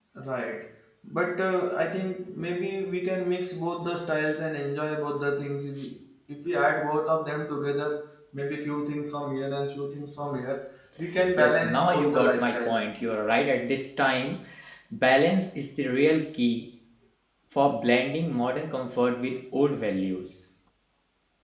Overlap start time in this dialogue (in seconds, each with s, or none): 11.4 s